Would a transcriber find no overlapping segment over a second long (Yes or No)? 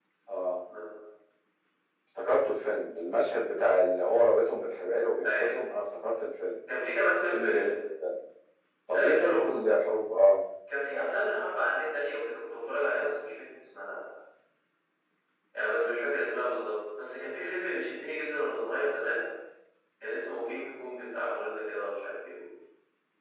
Yes